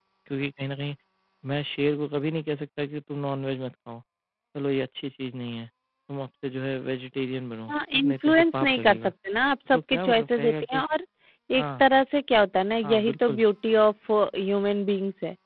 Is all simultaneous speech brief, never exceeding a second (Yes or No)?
No